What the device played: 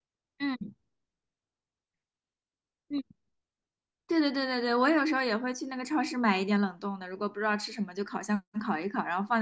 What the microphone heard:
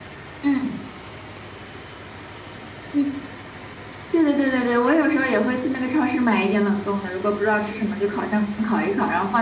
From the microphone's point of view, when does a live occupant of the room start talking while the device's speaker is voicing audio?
none

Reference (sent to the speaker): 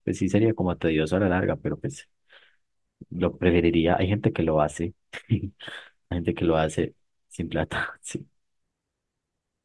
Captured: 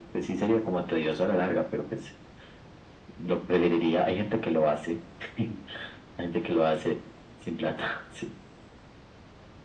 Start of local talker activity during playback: none

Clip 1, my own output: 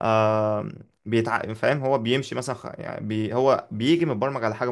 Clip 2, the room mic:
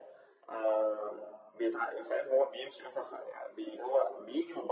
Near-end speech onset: none

